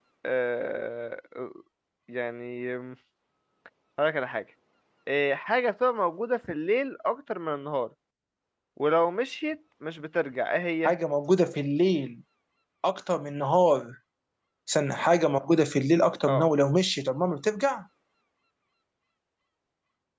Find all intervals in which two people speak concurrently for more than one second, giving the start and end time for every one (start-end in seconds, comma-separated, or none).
none